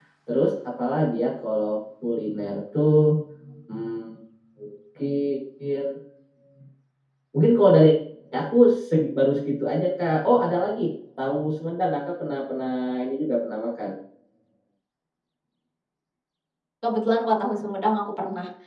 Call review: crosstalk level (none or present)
none